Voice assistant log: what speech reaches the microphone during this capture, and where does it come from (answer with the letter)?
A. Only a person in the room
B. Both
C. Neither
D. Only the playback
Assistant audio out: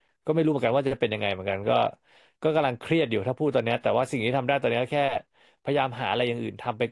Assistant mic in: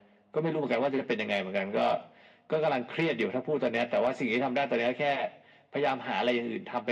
D